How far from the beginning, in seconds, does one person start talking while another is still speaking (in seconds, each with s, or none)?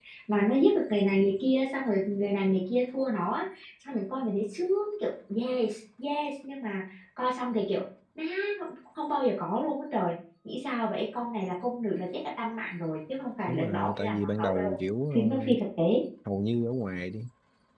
13.5 s